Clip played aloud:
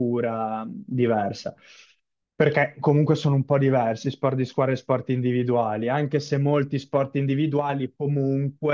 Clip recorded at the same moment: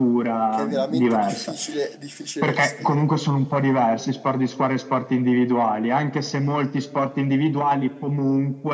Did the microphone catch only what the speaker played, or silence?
No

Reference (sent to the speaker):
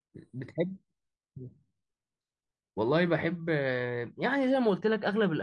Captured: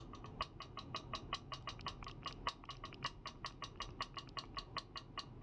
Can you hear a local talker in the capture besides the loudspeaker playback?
No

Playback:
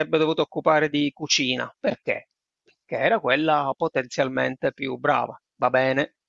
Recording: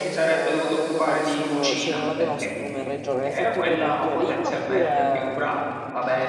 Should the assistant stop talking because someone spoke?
Yes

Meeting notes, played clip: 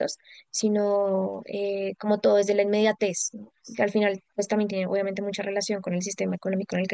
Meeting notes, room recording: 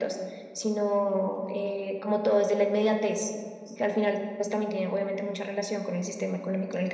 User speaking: No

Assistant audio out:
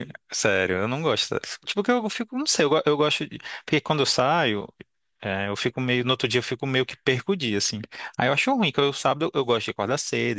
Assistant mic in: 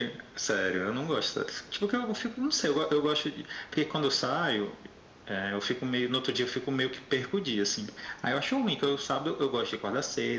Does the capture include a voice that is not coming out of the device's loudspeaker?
No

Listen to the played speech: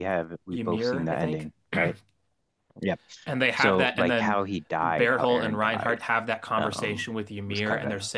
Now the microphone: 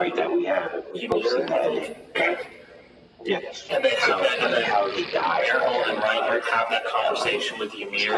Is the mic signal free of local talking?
Yes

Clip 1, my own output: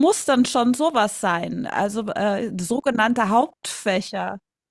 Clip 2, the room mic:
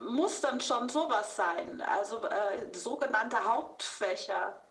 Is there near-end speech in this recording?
No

